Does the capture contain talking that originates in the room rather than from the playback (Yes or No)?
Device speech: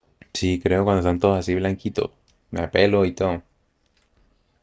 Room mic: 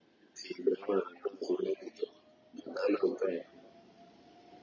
No